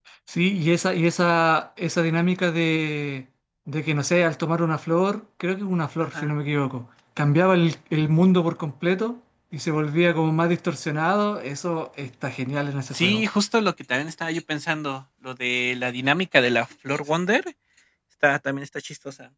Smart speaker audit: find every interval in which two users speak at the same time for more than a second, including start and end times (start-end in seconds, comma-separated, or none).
none